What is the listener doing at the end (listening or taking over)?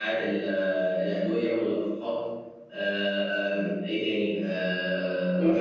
taking over